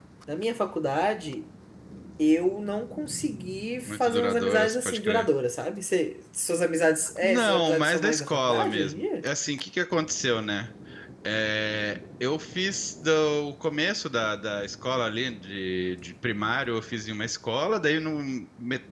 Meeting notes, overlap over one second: present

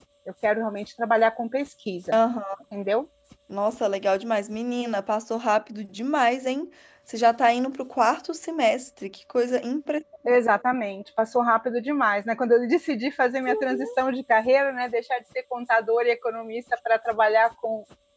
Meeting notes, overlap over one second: none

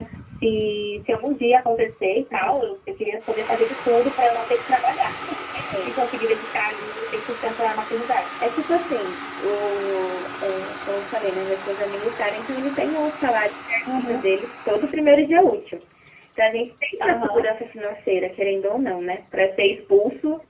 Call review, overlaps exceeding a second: none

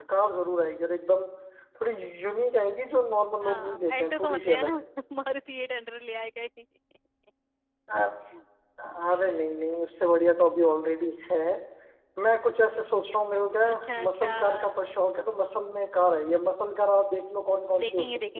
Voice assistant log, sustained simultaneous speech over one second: present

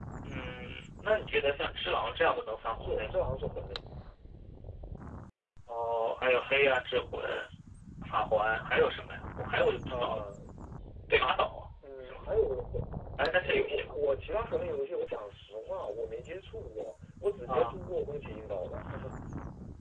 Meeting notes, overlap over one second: none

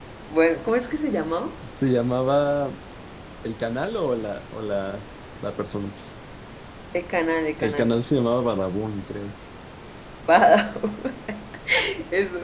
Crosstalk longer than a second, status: none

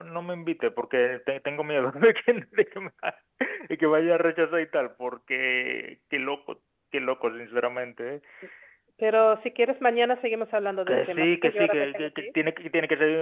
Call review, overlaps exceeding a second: present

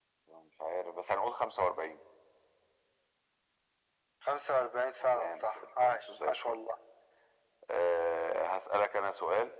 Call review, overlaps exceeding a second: present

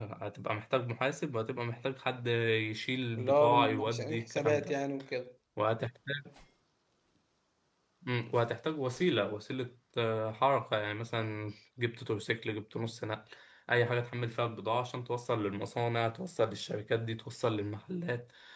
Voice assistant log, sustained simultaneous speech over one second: present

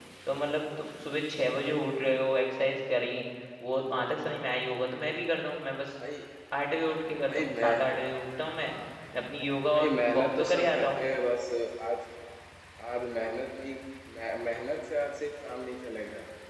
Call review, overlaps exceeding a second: present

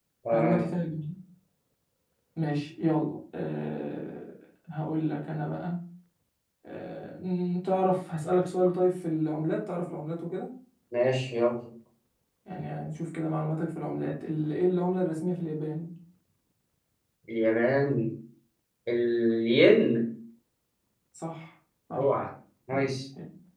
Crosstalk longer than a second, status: none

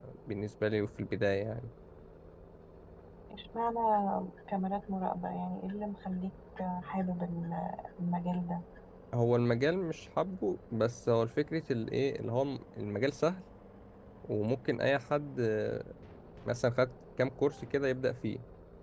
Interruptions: none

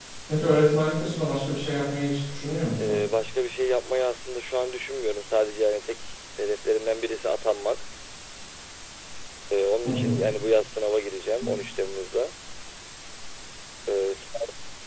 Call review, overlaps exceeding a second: none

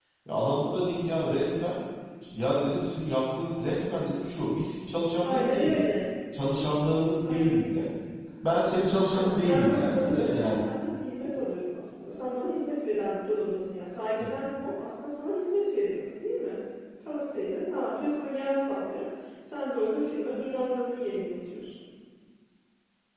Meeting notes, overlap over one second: present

